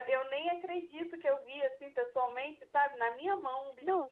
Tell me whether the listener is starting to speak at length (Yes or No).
Yes